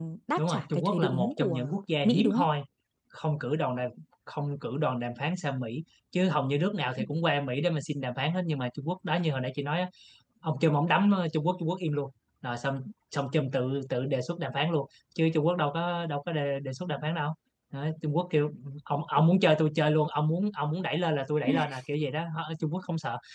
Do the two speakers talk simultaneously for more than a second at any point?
Yes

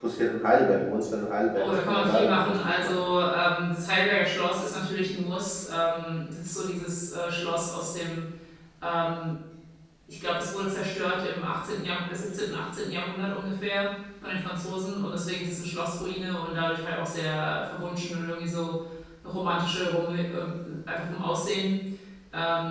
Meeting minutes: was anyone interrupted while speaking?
Yes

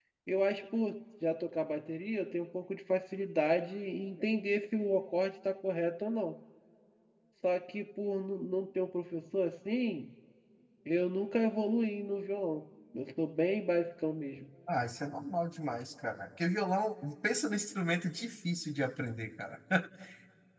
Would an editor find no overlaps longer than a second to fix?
Yes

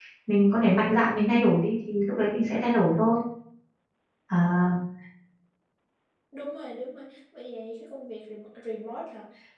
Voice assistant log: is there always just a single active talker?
Yes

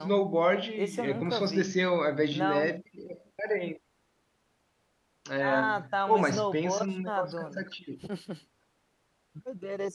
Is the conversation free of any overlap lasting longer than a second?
No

